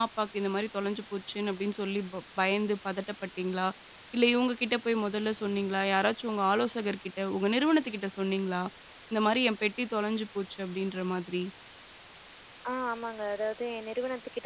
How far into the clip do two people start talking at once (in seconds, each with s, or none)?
none